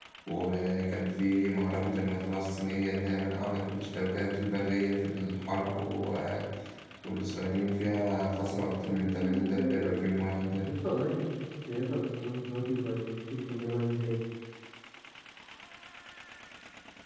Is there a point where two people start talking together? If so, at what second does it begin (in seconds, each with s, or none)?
8.9 s